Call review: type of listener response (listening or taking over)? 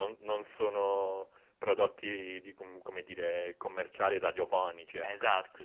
taking over